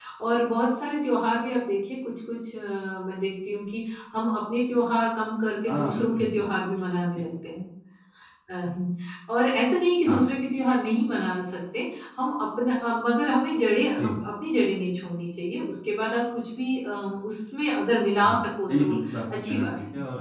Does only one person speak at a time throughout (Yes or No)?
No